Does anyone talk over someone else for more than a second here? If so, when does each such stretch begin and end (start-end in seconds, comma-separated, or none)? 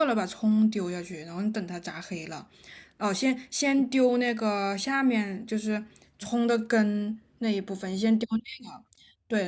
none